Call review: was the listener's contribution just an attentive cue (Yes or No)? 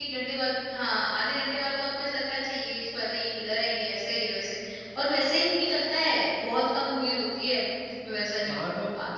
No